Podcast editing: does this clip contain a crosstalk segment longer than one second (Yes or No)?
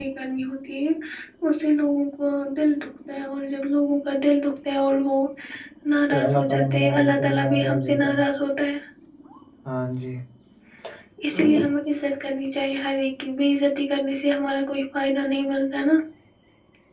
Yes